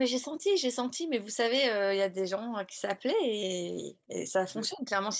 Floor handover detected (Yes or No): No